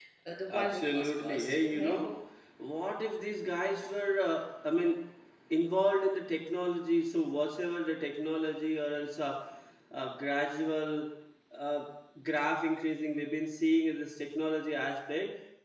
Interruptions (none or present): present